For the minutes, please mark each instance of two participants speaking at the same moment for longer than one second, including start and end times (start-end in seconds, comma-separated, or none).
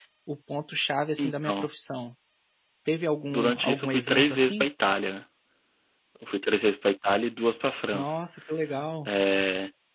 3.3-4.6